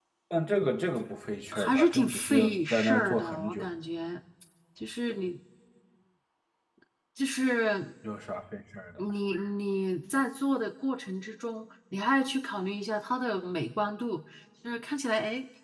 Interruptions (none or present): present